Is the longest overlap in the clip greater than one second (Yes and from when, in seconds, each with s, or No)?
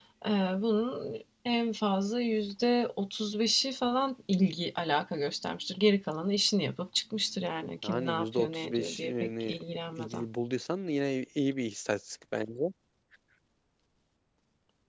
Yes, from 7.8 s